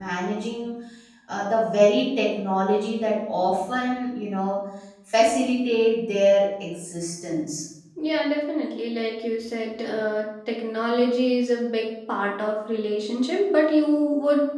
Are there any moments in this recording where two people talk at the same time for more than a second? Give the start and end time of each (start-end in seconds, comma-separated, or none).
none